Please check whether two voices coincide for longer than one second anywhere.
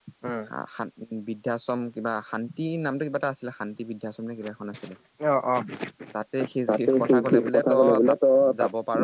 Yes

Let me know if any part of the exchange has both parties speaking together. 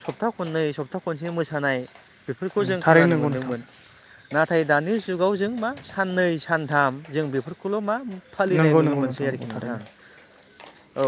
Yes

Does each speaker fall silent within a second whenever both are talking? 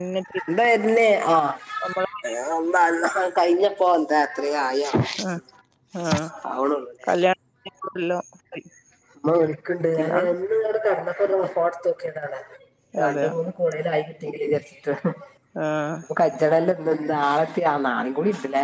Yes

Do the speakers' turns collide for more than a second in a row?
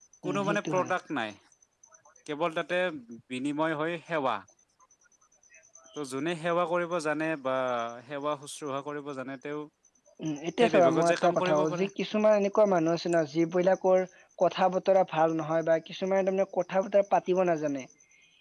Yes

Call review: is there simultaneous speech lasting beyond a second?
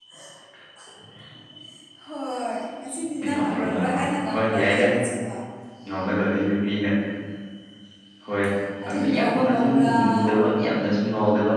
Yes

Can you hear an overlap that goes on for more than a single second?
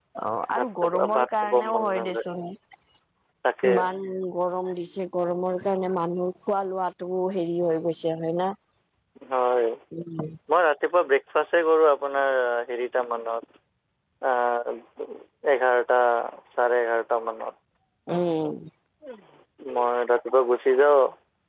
Yes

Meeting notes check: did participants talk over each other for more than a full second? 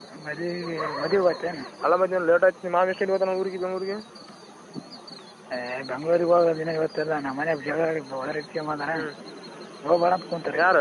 No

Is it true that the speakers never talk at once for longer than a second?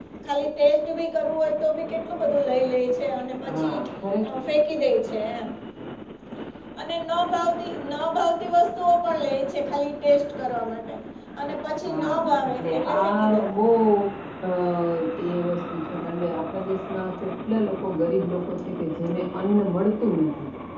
No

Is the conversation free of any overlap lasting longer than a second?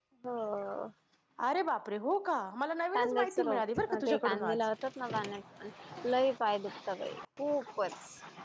No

